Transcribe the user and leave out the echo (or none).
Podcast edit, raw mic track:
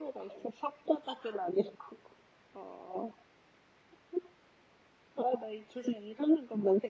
none